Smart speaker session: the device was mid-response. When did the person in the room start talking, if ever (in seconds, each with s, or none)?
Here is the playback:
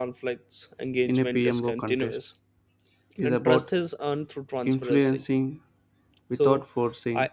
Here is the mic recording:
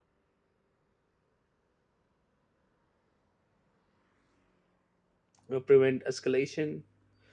5.5 s